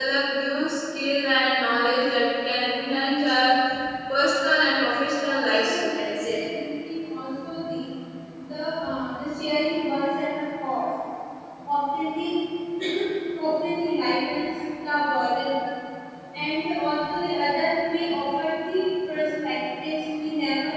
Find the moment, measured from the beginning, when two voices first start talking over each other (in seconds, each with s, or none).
4.6 s